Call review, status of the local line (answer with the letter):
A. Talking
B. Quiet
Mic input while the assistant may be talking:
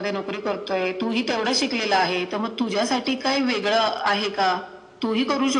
B